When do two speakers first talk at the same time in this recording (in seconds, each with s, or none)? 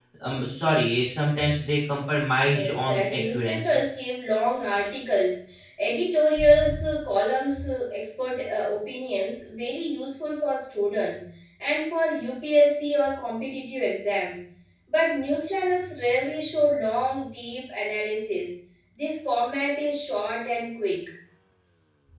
2.4 s